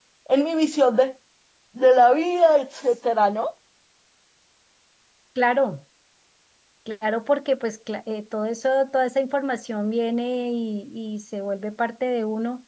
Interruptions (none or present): none